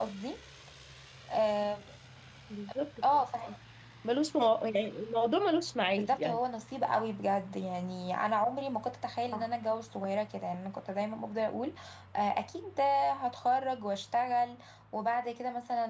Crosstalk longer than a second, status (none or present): none